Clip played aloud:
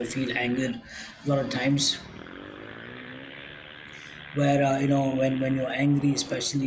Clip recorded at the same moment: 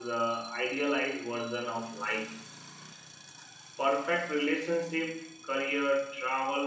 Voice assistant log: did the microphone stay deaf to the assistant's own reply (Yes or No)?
Yes